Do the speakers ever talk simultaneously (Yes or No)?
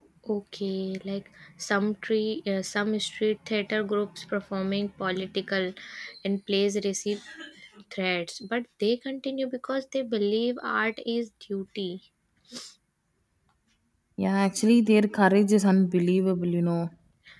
No